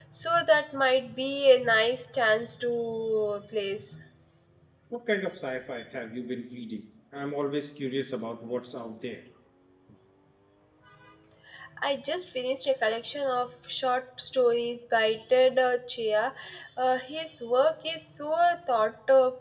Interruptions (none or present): none